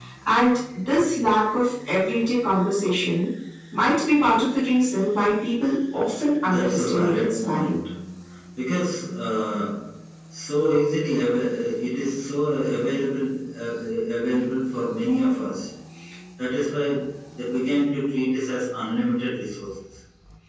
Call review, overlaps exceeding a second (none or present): present